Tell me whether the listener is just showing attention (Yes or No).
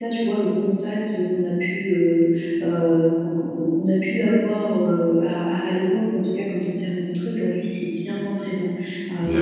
Yes